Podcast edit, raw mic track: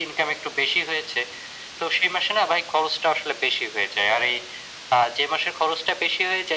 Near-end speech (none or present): none